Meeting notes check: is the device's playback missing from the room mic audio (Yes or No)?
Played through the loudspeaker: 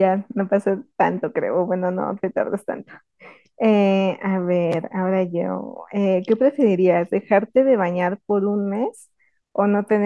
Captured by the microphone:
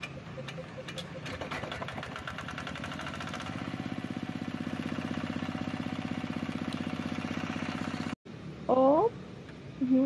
Yes